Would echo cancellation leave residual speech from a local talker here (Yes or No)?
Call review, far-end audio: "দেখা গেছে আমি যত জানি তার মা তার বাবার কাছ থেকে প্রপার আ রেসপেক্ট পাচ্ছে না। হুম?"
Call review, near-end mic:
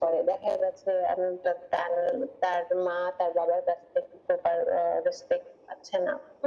No